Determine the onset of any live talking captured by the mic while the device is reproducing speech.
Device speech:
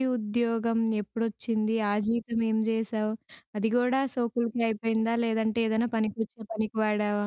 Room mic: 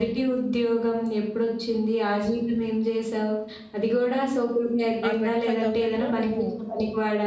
5.1 s

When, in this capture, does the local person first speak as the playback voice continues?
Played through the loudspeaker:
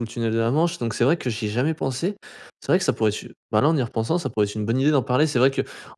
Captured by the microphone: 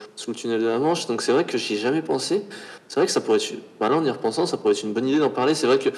none

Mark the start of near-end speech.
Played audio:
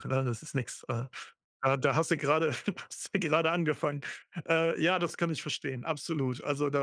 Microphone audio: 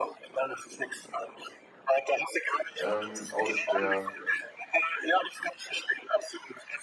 2.8 s

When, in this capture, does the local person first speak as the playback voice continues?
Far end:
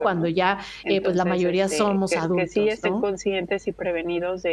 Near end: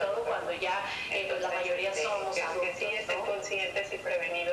none

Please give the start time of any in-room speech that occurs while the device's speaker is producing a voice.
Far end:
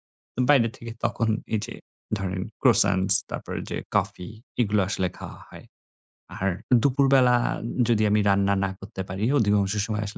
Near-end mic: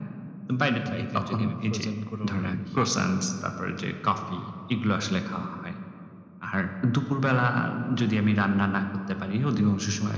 0.9 s

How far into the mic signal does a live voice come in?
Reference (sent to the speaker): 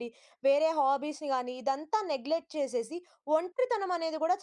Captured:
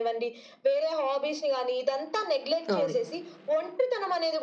2.7 s

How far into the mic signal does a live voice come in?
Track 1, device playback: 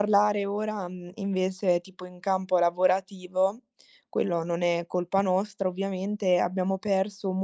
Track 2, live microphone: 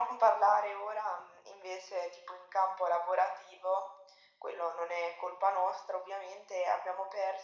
none

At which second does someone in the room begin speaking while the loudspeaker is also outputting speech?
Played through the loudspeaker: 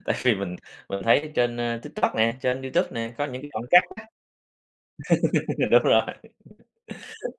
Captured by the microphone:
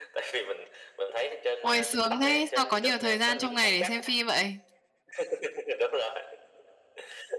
1.6 s

